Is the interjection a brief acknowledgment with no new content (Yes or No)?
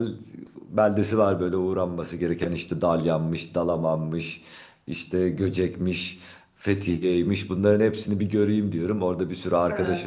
Yes